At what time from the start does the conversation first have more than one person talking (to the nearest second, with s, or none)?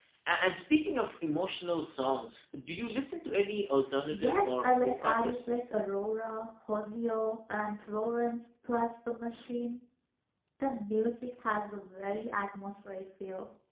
4 s